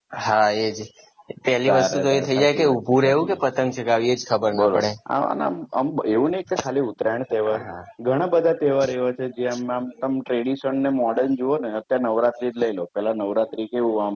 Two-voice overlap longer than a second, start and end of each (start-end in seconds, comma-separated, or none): 1.7-3.4